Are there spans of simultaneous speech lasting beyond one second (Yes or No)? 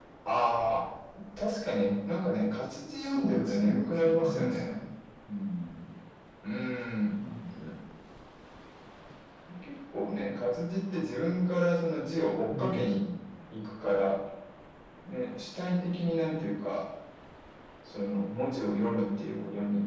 Yes